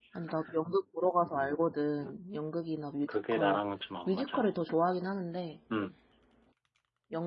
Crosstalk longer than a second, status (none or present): none